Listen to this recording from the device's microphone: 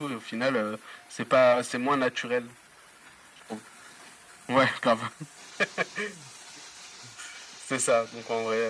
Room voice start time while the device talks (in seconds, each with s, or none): none